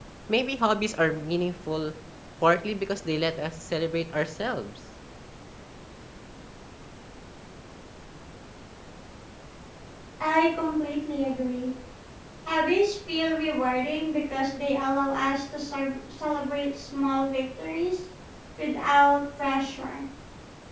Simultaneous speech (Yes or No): No